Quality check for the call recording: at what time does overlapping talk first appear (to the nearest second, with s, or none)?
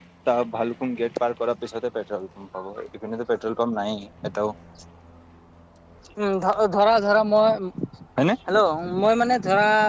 none